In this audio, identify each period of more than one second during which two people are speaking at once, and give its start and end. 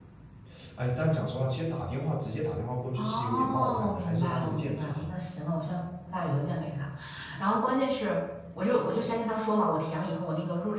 3.0-5.1

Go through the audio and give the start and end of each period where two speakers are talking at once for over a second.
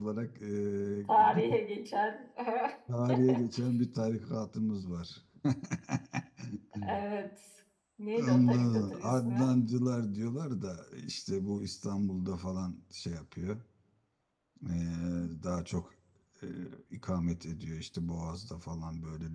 8.2-9.5

